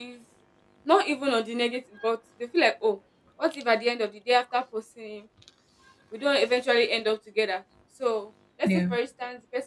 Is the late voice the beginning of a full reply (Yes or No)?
No